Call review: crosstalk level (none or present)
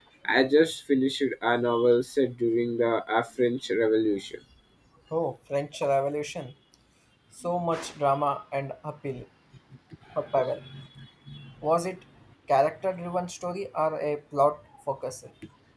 none